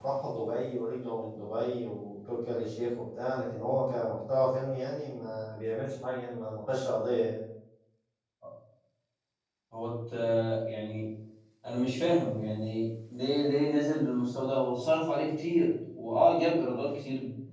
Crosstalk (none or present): none